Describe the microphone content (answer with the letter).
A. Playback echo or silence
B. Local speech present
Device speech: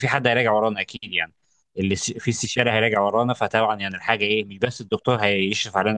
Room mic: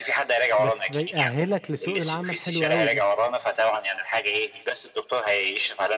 B